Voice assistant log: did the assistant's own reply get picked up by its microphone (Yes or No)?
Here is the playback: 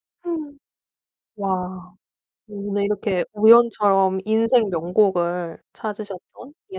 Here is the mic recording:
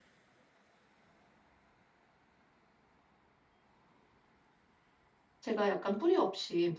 No